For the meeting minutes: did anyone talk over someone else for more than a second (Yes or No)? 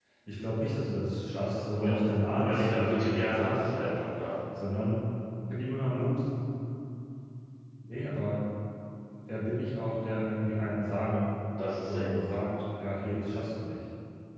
Yes